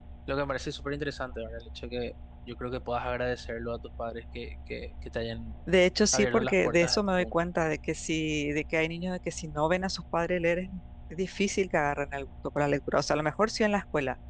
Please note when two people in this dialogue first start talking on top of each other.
6.1 s

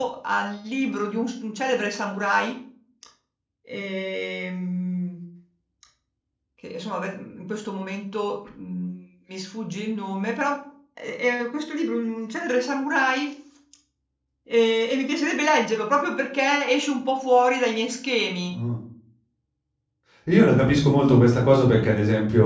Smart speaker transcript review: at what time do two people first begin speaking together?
none

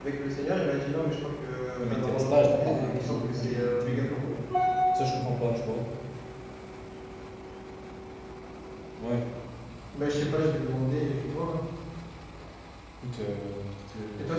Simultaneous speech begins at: 1.8 s

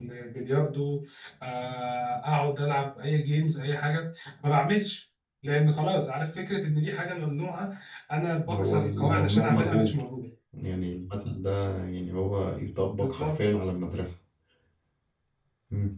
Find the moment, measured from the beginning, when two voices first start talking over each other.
8.5 s

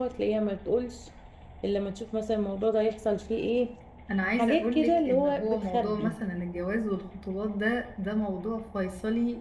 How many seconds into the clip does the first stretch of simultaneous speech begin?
4.4 s

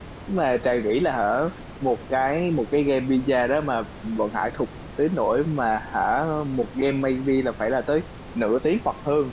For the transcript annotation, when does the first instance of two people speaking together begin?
none

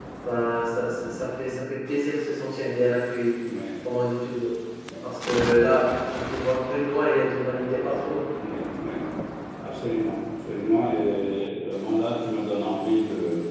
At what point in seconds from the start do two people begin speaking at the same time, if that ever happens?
none

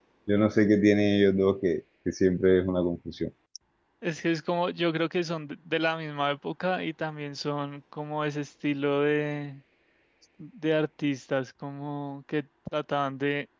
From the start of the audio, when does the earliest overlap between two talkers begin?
none

